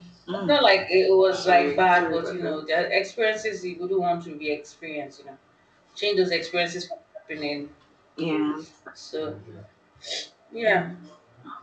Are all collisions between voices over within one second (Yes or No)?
No